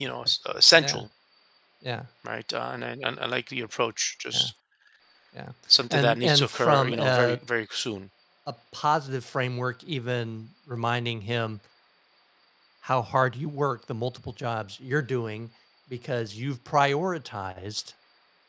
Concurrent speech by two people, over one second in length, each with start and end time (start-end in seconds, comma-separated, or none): 5.9-7.4